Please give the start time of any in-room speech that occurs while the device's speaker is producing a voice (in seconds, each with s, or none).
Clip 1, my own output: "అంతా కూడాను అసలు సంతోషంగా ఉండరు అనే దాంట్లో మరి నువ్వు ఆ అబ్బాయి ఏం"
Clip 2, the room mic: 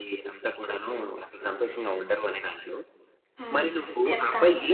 3.4 s